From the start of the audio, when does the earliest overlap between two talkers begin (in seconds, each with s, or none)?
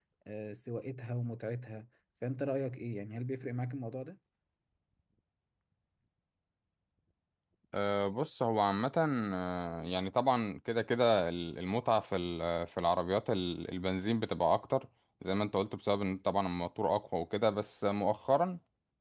none